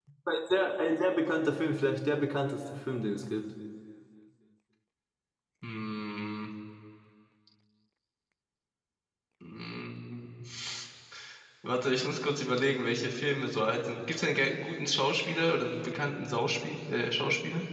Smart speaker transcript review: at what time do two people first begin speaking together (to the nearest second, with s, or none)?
none